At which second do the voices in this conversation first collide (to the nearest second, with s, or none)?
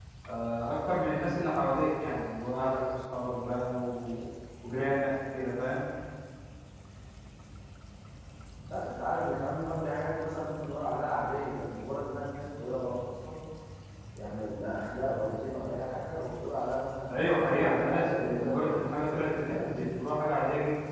18 s